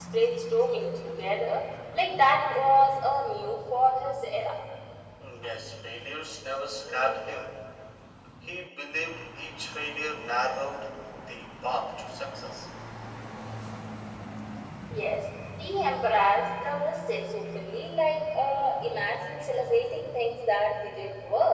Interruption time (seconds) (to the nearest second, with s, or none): none